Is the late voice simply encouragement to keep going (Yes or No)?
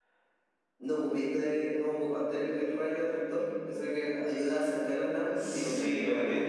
No